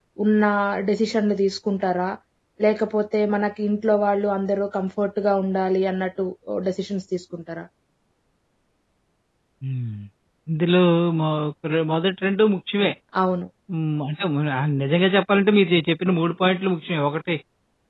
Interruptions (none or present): none